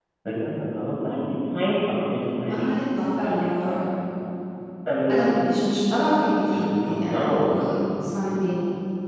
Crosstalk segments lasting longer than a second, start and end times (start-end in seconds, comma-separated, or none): 6.5-7.8